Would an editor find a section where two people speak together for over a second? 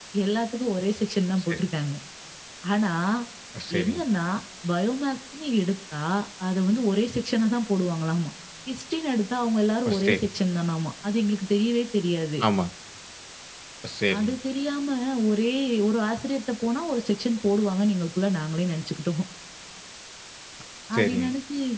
No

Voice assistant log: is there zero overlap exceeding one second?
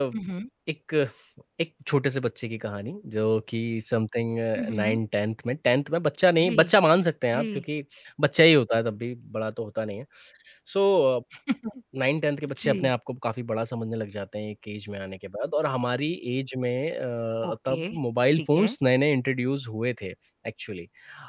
Yes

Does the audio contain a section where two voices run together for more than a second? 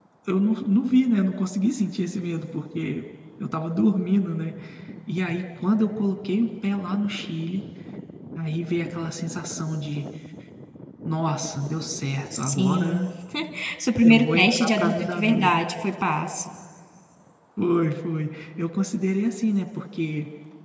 Yes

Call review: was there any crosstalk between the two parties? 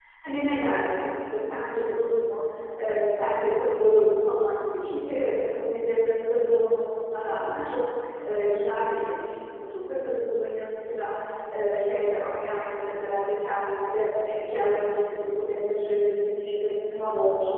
No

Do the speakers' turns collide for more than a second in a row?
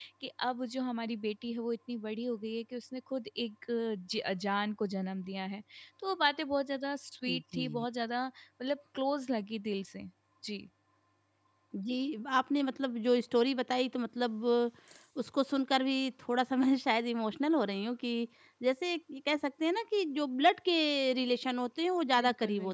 No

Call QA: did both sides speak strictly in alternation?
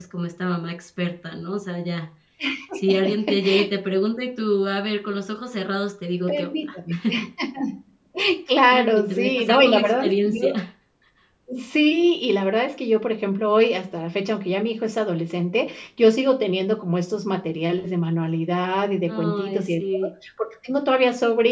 No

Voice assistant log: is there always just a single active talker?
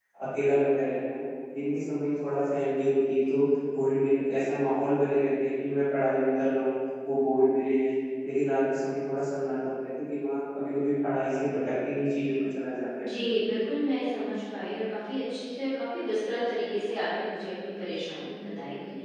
Yes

